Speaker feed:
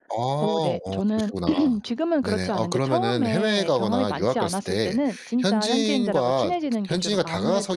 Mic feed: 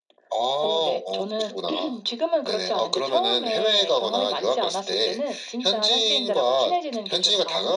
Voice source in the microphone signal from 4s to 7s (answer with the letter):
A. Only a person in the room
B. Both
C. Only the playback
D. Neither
C